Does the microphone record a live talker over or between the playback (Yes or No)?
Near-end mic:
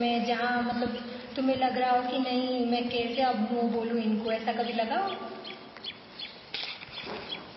No